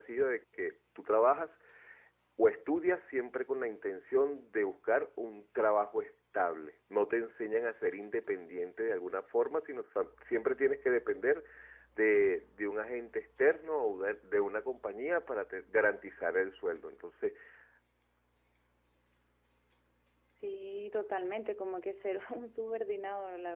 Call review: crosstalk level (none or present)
none